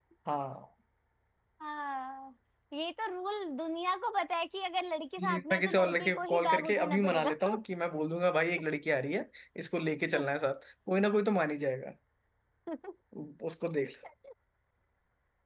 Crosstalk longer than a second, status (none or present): present